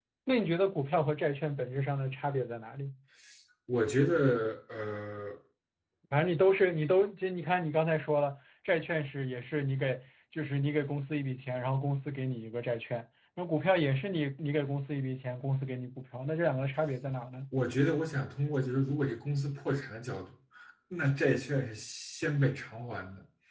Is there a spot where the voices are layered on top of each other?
No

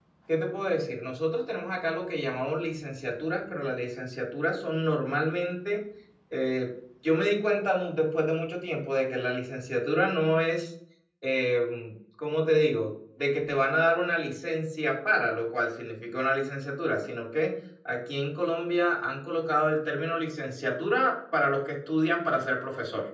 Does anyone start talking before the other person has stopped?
No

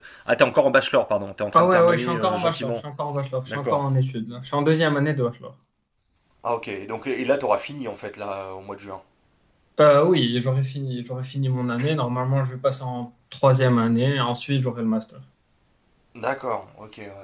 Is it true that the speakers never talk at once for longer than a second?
No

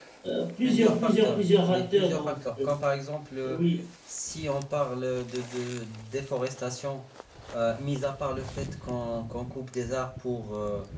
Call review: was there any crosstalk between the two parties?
Yes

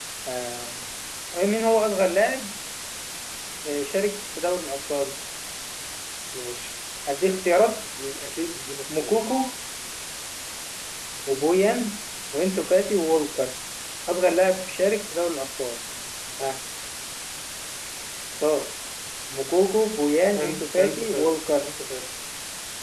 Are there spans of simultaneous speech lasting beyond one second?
Yes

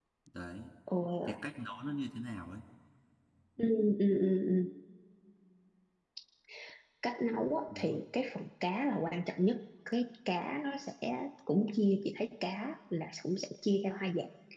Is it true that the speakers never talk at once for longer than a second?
Yes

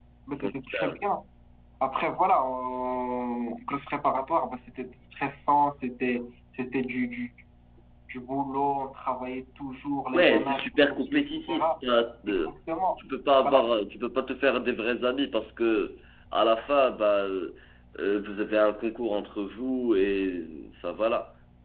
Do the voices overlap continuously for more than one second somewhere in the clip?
Yes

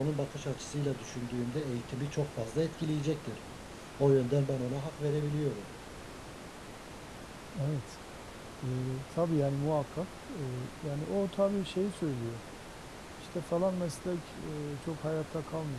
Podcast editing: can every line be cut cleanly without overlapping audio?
Yes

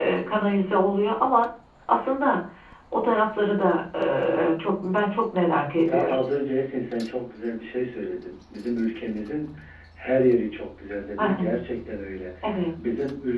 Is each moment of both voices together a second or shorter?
Yes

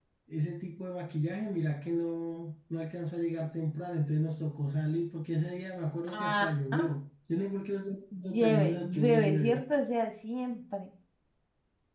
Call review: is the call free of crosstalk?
No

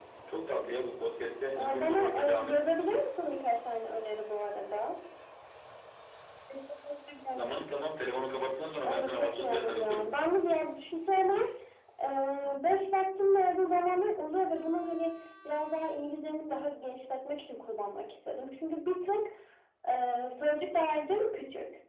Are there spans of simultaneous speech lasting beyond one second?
Yes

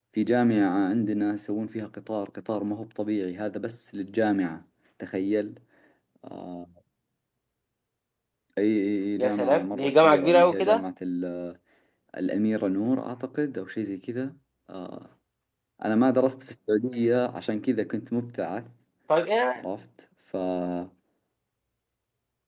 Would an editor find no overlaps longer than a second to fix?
No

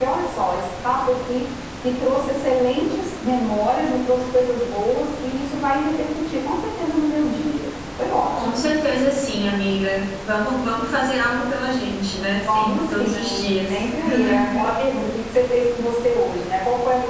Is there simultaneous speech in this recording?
Yes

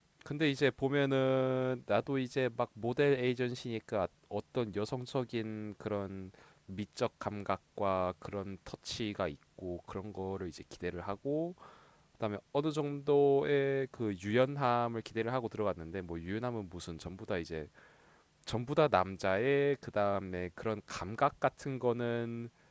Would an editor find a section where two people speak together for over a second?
No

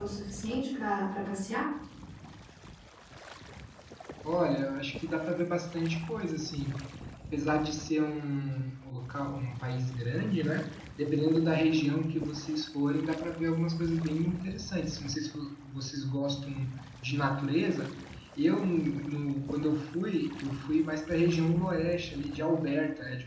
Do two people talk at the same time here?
No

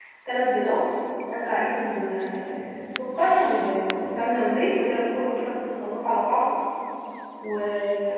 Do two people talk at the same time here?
No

